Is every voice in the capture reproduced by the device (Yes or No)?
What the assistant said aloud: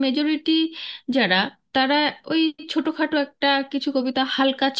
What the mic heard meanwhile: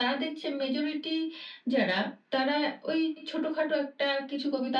Yes